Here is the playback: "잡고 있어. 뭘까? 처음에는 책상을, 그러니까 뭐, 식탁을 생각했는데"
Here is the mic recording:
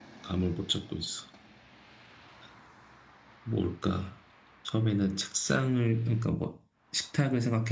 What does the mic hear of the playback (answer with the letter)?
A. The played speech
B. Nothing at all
A